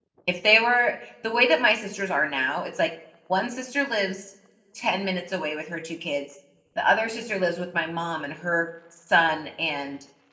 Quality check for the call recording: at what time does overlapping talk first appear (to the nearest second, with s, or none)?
none